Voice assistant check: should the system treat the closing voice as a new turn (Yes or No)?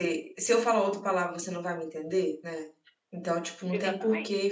No